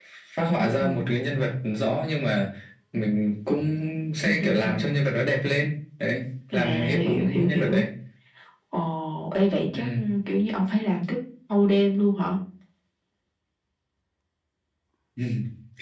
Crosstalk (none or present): present